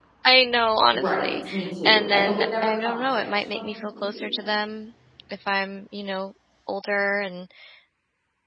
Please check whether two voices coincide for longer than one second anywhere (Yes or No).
Yes